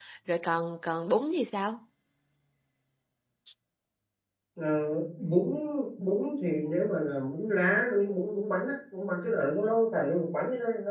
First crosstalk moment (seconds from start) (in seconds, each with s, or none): none